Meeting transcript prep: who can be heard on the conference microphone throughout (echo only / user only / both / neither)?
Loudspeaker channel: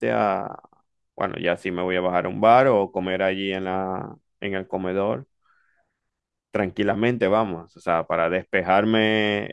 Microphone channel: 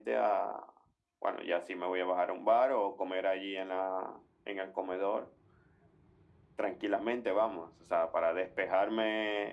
echo only